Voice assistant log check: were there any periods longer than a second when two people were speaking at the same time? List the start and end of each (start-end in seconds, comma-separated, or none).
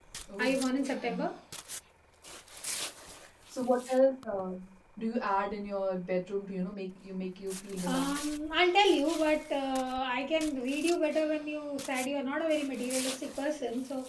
none